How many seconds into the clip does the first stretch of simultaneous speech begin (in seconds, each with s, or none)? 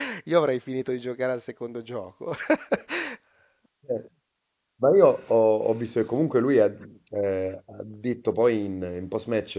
none